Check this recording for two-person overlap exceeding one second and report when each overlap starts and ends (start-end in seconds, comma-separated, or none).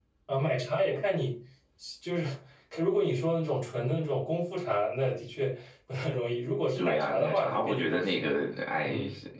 6.8-8.3